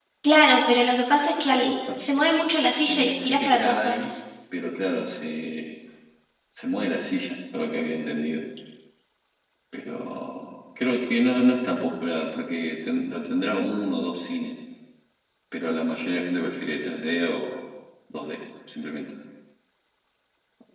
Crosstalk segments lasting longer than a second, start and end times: 2.8-4.1

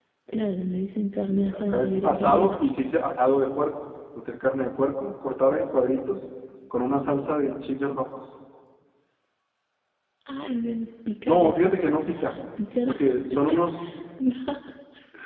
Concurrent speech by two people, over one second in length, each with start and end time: 1.3-2.5

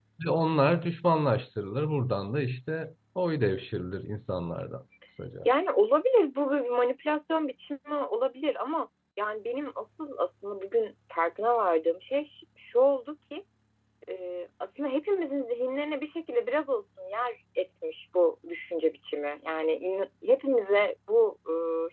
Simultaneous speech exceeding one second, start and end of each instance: none

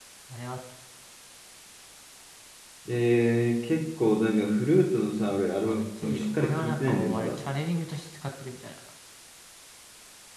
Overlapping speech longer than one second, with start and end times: 5.6-7.4

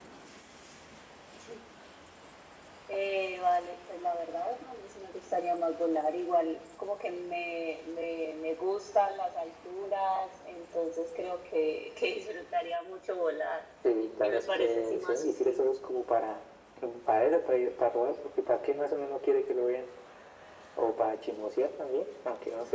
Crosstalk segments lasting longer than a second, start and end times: 14.2-15.6

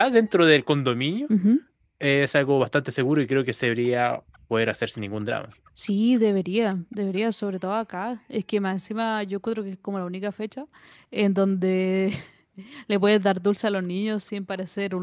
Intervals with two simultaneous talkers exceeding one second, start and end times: none

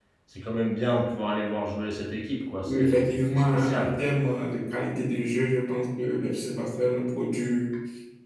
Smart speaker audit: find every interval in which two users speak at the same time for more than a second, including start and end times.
2.6-4.0

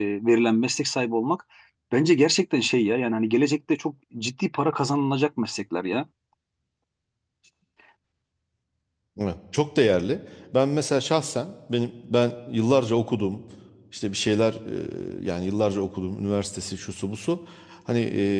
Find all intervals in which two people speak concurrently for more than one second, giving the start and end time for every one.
none

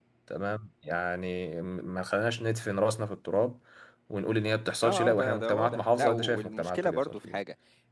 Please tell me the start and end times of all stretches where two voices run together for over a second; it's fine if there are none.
4.8-7.4

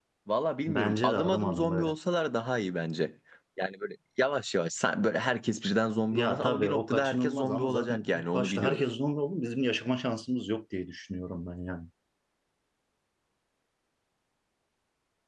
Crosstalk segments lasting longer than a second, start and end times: 0.7-1.9, 6.1-8.8

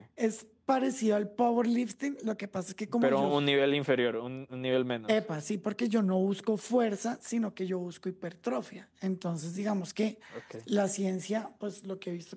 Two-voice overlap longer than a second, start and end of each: none

